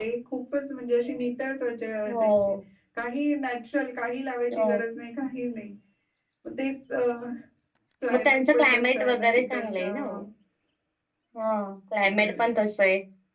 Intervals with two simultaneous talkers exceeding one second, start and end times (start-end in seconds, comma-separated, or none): 8.1-10.2